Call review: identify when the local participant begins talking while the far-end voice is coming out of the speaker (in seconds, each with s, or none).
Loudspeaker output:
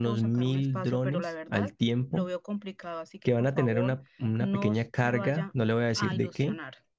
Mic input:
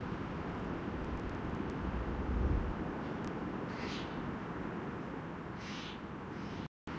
none